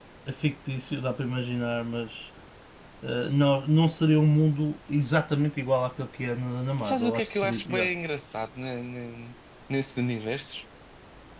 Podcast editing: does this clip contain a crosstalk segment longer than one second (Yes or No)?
Yes